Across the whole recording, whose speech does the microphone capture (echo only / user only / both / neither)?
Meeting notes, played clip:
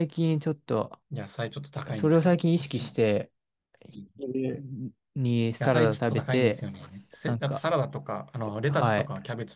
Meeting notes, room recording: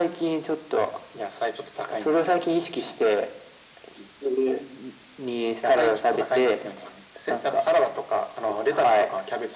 echo only